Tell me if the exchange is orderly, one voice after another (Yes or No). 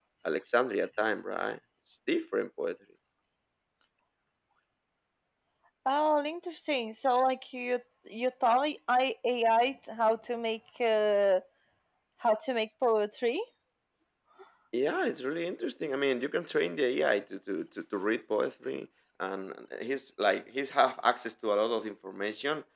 Yes